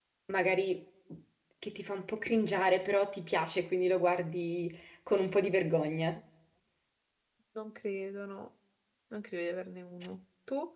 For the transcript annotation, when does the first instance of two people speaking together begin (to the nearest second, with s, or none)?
none